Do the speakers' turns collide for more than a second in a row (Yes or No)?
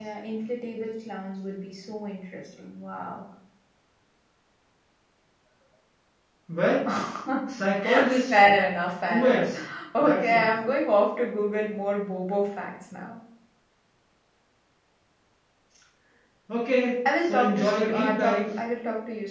Yes